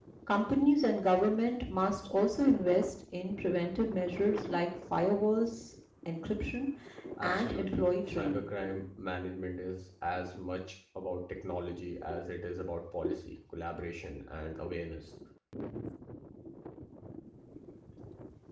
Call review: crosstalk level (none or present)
present